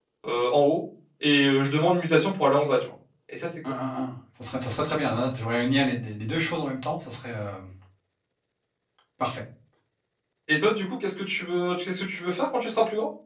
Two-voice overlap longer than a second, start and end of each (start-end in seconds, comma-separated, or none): none